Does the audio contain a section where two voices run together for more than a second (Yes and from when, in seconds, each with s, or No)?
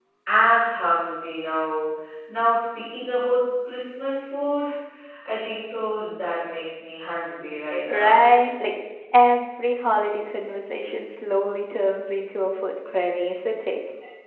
No